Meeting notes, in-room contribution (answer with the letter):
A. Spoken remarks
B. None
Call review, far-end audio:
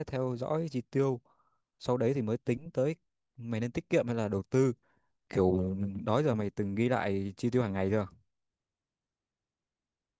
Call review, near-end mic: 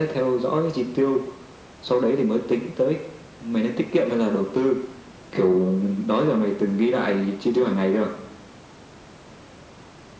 B